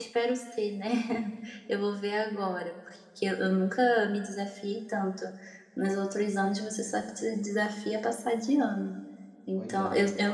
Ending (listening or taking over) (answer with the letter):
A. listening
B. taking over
A